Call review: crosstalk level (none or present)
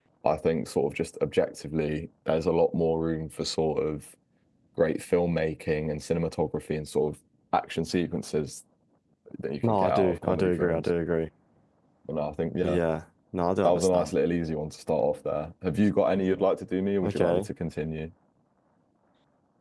present